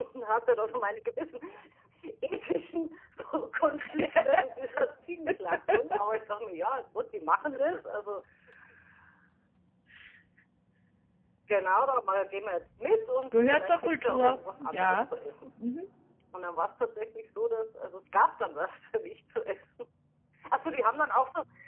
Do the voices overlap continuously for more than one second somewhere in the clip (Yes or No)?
Yes